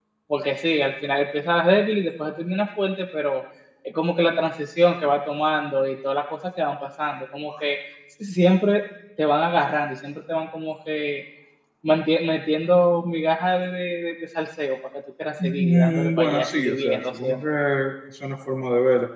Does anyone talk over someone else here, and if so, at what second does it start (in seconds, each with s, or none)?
15.4 s